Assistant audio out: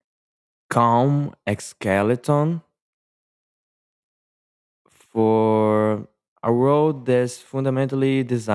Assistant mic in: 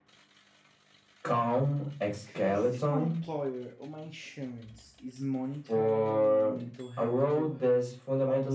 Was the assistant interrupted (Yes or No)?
Yes